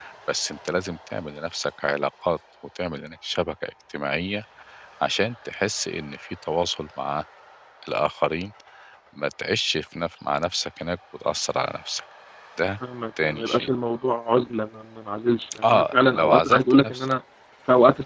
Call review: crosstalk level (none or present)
present